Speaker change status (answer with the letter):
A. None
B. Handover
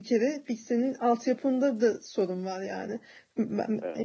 A